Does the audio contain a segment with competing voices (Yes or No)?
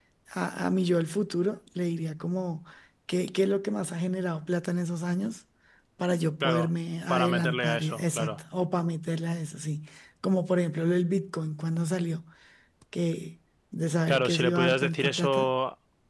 Yes